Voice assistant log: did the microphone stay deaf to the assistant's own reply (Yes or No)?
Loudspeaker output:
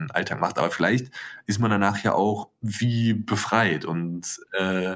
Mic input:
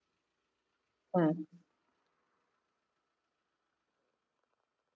Yes